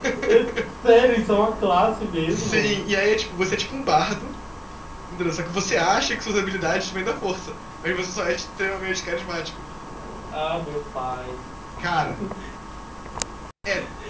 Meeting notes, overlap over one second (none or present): none